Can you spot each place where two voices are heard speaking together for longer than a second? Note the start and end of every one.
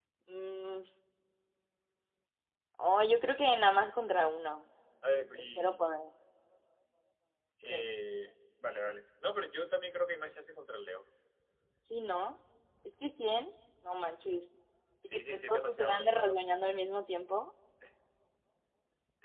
15.0-16.4

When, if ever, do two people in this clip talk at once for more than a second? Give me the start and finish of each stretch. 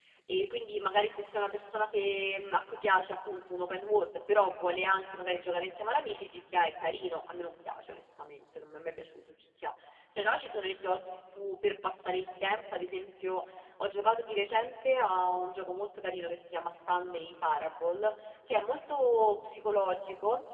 none

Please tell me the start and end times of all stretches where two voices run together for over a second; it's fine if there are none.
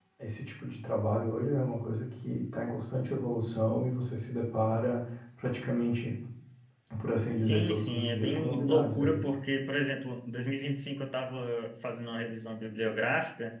7.4-9.3

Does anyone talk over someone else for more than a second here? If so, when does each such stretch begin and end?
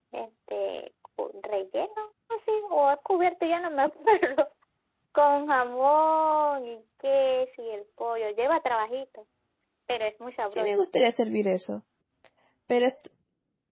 none

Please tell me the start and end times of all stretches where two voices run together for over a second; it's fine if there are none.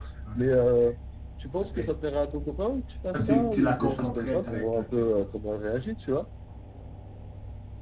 3.1-5.1

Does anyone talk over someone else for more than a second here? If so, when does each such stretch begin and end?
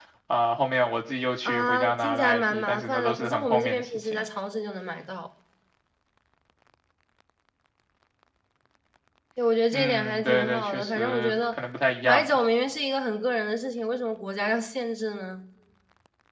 1.4-4.2, 9.7-11.6

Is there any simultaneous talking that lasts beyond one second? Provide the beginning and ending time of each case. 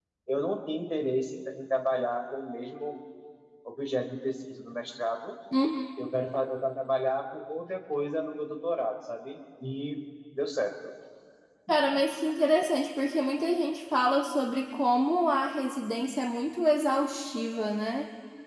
none

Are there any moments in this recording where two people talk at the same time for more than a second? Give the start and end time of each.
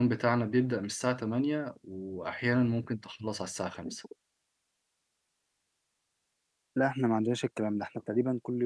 none

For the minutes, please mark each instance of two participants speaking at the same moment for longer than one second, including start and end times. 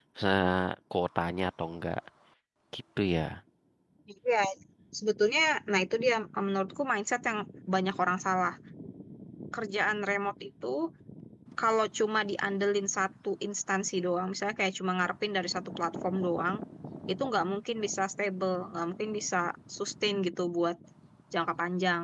none

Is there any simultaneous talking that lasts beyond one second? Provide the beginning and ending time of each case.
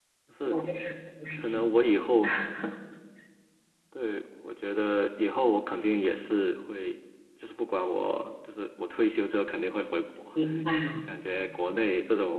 none

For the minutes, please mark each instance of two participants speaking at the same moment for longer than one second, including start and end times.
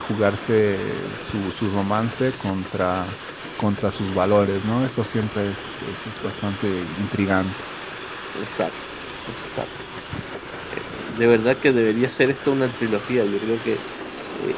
none

